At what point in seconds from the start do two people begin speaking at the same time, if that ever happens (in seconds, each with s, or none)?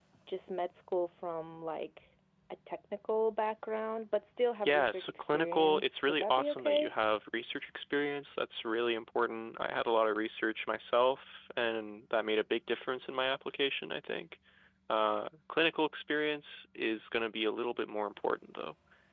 4.7 s